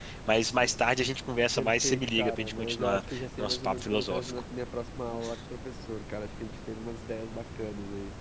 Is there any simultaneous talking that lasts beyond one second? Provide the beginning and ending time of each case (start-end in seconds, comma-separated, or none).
1.6-4.3